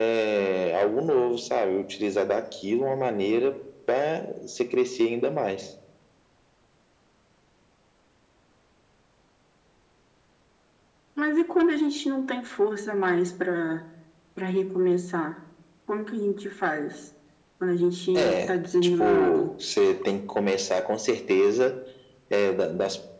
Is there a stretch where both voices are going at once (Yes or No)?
Yes